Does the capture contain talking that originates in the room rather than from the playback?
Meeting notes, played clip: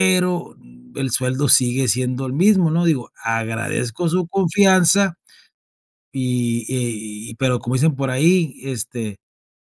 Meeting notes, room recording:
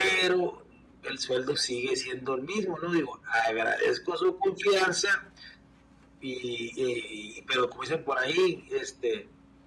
No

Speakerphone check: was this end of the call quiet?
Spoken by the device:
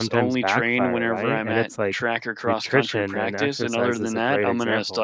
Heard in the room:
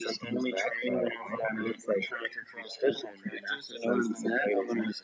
Yes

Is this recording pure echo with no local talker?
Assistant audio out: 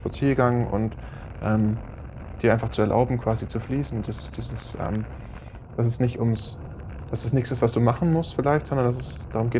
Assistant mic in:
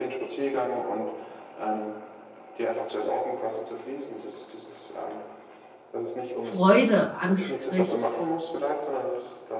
No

